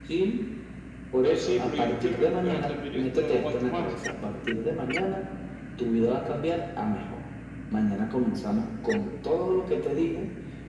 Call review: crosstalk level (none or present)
present